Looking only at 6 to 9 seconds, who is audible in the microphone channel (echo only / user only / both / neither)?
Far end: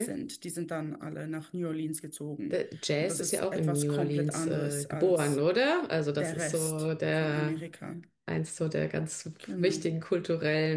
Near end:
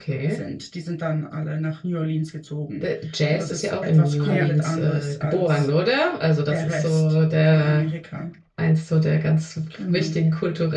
echo only